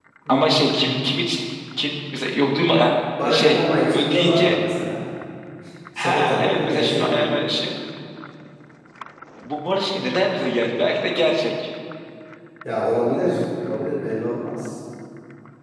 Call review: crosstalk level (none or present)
present